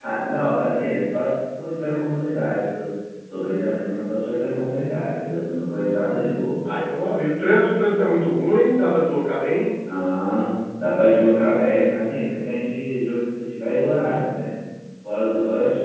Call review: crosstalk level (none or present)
none